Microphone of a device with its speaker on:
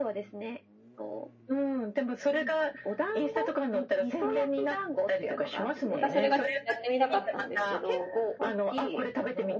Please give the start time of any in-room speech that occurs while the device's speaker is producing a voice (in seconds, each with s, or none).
5.9 s